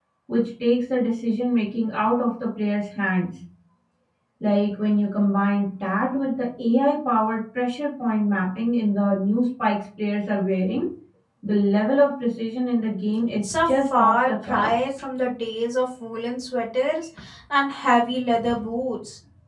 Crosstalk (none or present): present